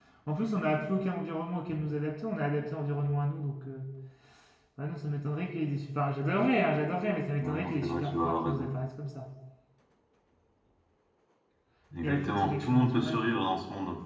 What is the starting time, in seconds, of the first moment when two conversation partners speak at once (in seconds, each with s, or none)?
7.4 s